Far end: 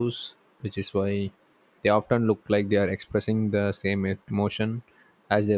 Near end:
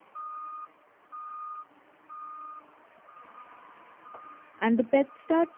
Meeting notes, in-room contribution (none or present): present